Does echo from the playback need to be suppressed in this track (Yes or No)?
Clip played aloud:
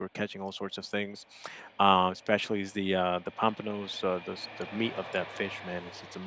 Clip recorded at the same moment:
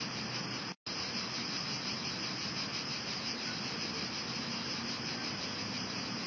No